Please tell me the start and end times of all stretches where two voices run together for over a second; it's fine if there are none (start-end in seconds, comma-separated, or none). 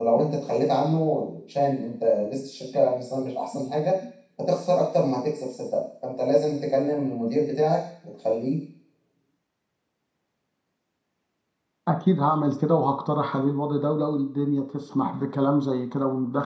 none